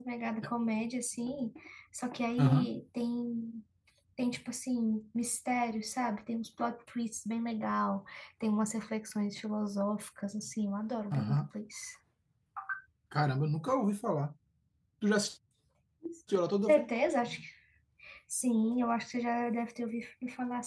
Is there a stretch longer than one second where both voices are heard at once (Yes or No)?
No